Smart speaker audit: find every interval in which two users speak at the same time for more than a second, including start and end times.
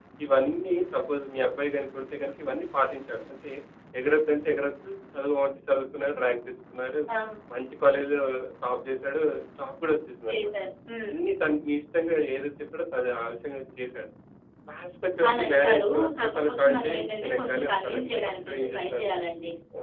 15.3-16.9, 17.3-19.1

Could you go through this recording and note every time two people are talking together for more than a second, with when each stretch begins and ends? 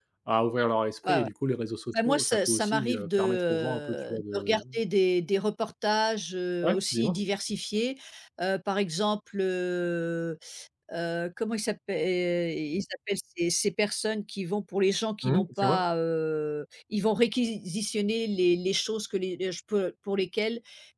2.0-4.6

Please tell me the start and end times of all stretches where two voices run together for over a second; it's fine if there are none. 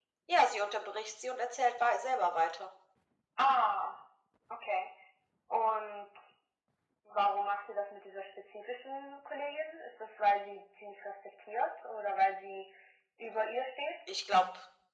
none

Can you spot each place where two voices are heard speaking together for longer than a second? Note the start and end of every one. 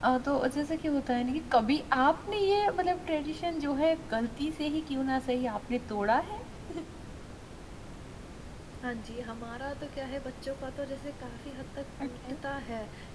none

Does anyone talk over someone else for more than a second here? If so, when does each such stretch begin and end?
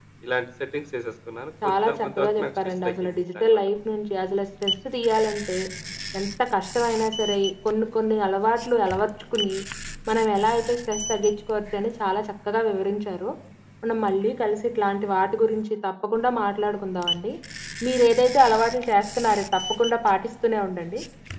1.6-3.7

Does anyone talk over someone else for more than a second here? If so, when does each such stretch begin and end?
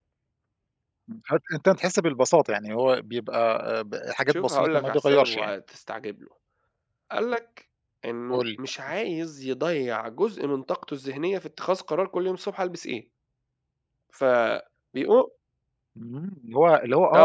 4.3-5.5

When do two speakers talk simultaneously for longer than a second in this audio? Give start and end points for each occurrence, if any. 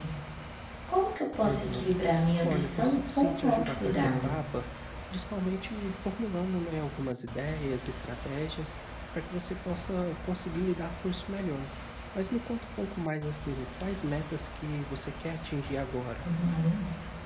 2.5-4.3

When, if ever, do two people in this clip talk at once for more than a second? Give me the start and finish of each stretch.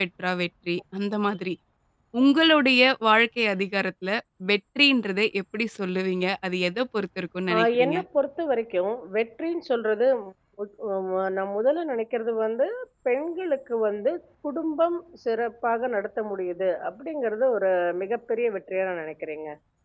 none

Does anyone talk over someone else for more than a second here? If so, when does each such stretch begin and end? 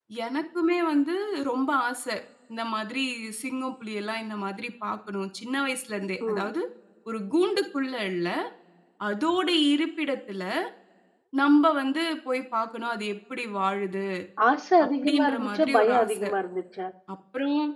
14.9-16.3

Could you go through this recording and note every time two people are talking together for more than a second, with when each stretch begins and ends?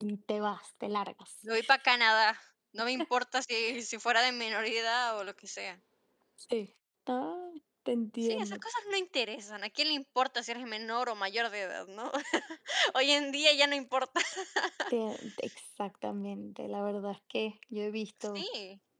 none

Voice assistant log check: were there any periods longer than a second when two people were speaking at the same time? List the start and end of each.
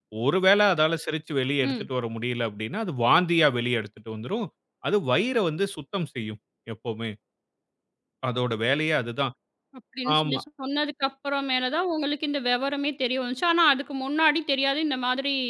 none

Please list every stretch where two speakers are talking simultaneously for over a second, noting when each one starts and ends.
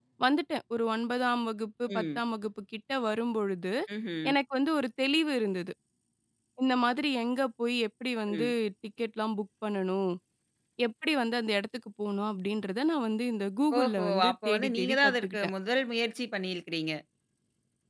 13.8-15.5

